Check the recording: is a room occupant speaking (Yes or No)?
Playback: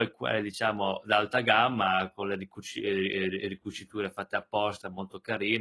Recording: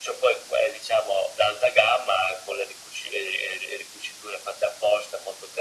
No